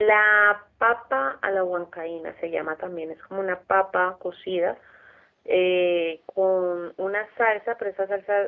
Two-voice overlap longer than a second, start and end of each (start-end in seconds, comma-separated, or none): none